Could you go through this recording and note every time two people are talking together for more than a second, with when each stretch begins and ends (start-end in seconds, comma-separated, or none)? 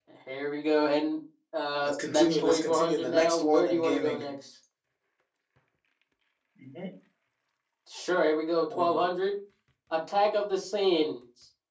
1.8-4.3